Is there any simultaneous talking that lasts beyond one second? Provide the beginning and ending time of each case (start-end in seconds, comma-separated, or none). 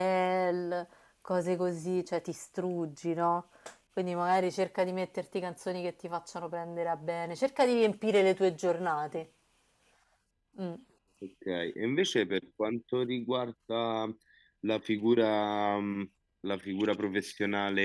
none